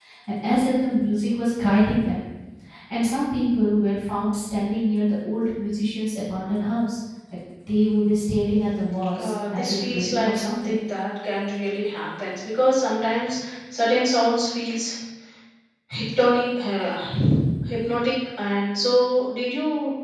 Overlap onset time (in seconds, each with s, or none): 9.1 s